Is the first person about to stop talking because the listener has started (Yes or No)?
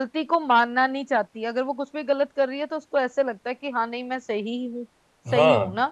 Yes